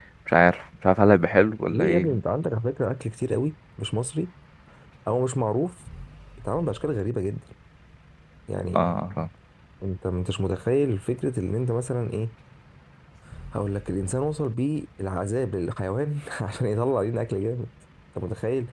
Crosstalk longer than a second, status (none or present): none